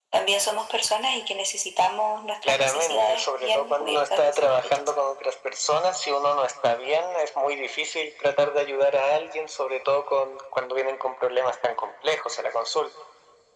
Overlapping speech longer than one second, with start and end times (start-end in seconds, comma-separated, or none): 2.4-4.8